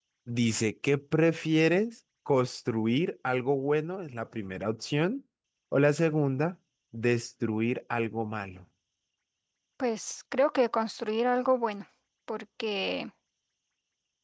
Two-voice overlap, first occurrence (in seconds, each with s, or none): none